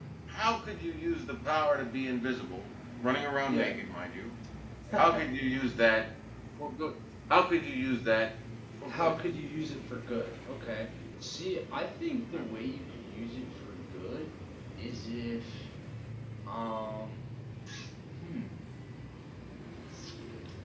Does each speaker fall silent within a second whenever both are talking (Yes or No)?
Yes